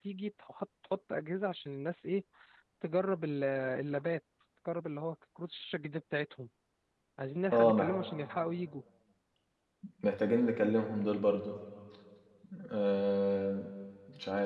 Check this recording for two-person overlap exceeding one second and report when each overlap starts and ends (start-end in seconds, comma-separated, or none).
none